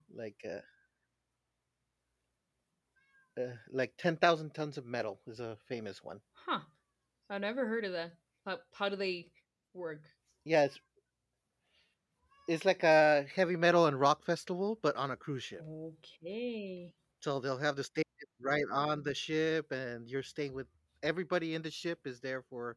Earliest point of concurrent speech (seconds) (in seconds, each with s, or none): none